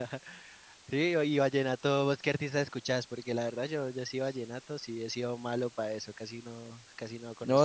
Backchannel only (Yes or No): No